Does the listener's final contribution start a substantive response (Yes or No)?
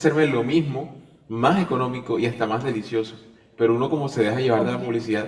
No